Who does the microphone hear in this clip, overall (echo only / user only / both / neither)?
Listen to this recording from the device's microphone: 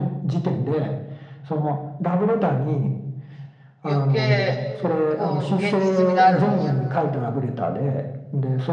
both